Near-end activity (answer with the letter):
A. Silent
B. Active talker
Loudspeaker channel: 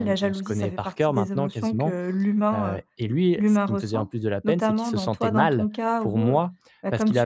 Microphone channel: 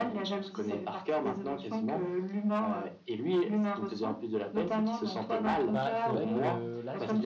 B